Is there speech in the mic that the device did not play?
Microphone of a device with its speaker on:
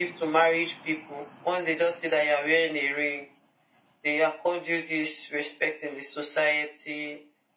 No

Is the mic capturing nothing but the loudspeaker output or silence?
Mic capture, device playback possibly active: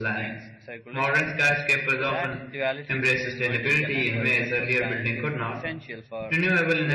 No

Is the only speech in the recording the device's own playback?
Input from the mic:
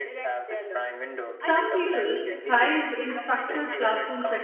No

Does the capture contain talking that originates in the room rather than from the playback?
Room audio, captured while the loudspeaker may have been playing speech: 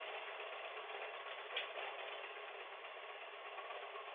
No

